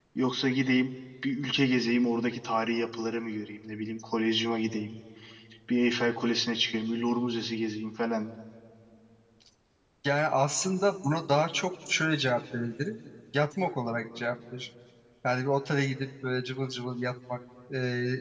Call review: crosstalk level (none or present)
none